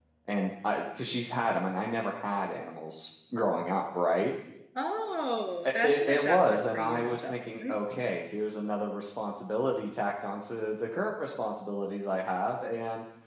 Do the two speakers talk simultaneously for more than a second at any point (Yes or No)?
Yes